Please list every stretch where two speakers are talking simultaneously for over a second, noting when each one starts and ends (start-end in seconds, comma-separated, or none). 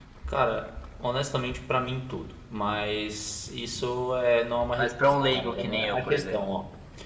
4.8-6.5